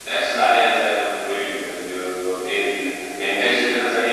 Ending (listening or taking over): listening